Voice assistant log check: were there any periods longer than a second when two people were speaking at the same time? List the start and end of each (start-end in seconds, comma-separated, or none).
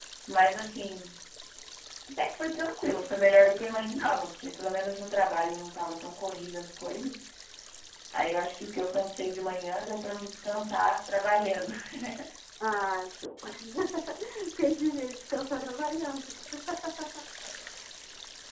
none